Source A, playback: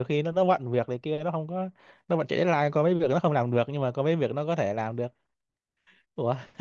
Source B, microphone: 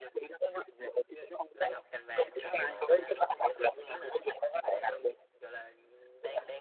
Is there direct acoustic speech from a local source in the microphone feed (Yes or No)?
Yes